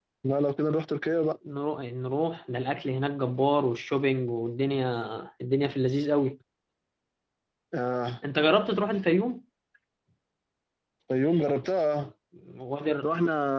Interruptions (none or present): none